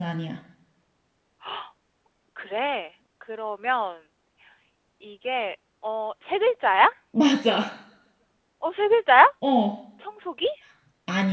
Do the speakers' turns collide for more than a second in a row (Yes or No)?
No